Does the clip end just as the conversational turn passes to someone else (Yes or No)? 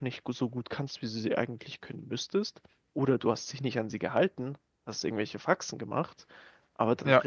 No